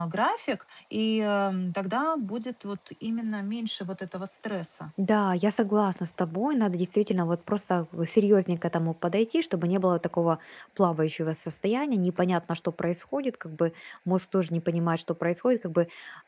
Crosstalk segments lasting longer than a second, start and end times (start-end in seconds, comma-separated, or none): none